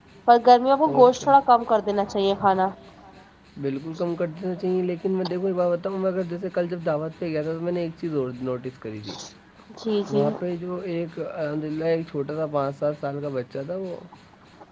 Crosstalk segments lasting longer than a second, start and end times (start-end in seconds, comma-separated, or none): none